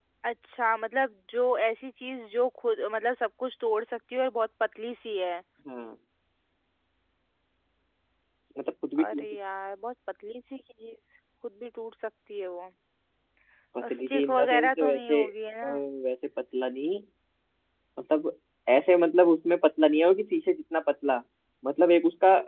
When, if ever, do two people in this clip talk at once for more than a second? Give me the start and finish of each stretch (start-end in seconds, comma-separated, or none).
14.0-15.2